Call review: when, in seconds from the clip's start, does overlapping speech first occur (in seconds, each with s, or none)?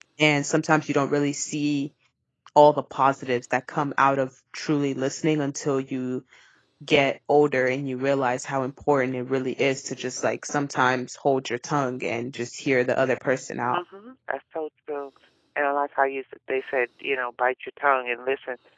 none